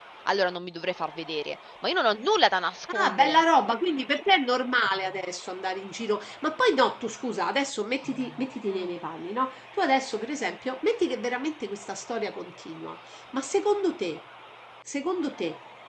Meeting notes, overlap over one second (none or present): none